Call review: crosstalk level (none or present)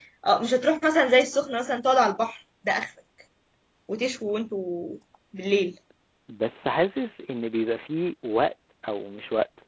none